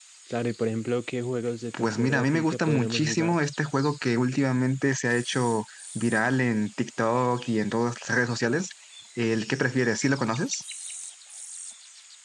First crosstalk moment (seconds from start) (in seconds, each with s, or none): 1.7 s